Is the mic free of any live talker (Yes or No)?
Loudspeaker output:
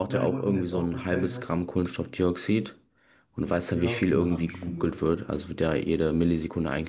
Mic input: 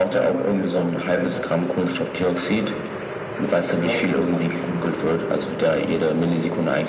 Yes